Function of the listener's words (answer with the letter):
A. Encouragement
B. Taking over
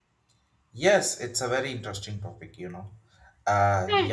A